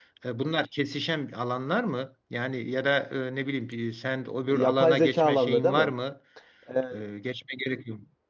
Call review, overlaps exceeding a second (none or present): present